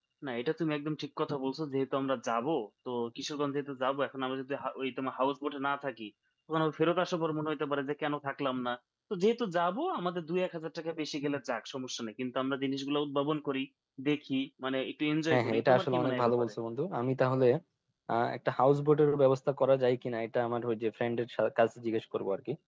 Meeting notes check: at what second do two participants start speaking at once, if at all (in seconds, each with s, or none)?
15.3 s